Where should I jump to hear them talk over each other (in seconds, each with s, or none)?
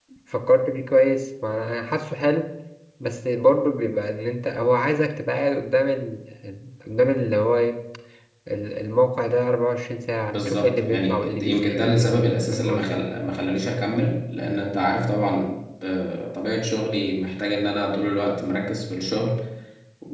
10.3 s